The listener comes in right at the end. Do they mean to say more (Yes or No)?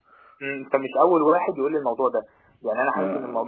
No